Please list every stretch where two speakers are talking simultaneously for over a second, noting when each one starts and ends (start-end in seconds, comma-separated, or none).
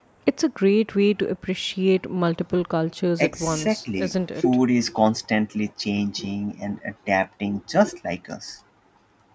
3.2-4.4